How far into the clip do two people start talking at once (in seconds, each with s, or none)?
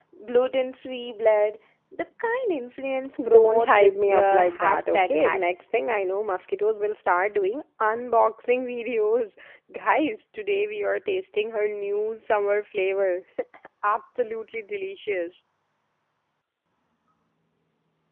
3.2 s